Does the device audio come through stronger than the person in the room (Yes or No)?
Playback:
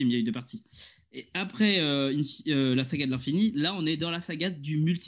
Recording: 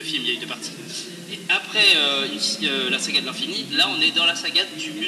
Yes